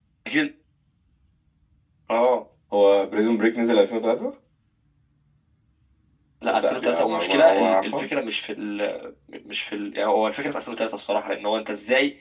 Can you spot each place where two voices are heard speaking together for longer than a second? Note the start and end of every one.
6.5-8.1

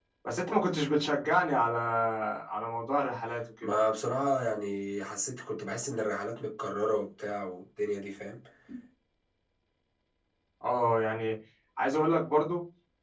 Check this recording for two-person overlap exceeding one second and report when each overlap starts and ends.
none

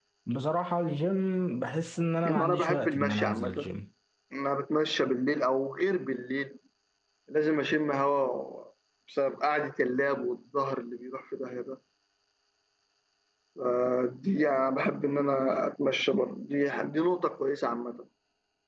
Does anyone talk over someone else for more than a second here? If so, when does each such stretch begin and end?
2.2-3.7

